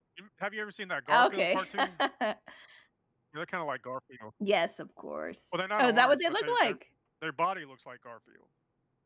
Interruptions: present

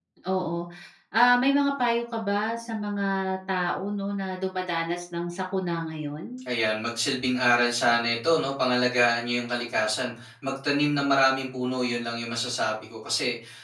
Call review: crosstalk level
none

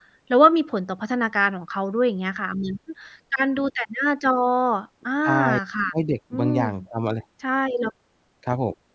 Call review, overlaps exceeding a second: none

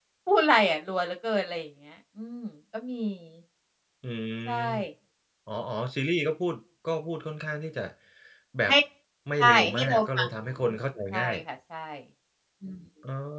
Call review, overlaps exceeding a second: present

